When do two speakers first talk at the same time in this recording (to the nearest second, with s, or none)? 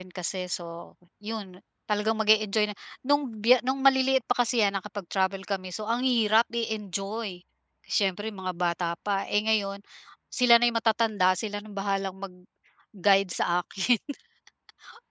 none